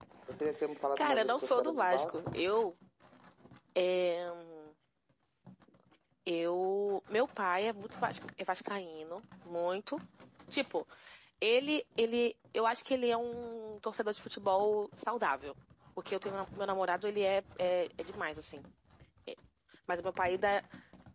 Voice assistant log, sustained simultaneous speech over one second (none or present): present